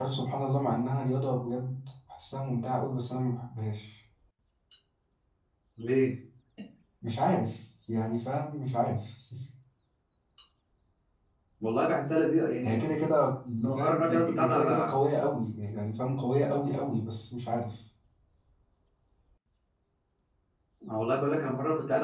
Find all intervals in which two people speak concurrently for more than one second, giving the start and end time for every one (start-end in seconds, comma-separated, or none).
13.6-14.9